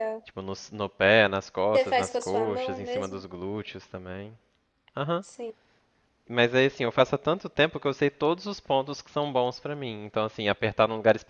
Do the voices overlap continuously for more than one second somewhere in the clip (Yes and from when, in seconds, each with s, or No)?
Yes, from 1.7 s